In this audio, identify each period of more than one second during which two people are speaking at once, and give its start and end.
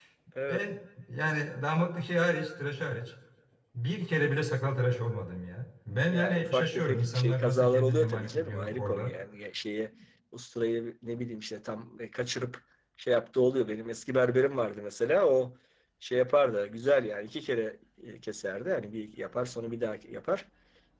6.1-9.1

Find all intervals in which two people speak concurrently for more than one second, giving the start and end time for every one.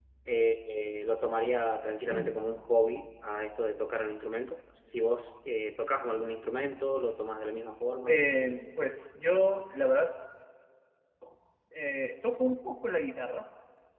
none

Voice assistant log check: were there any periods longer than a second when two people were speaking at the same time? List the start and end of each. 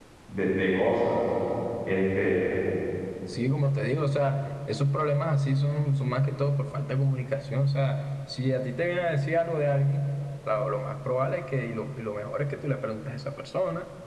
none

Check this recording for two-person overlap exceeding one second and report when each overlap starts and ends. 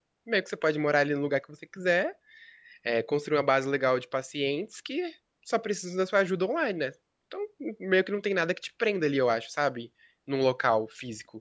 none

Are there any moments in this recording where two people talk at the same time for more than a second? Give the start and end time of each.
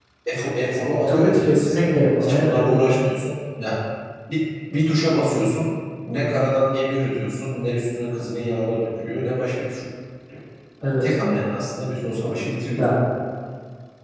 1.1-2.8

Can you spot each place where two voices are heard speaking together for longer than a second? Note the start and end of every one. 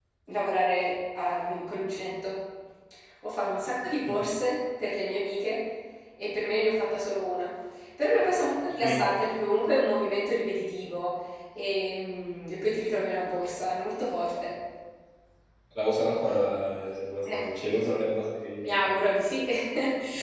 none

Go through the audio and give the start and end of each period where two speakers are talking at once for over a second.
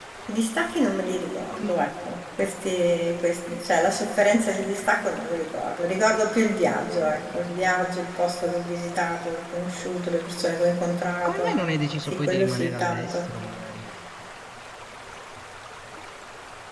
12.0-13.3

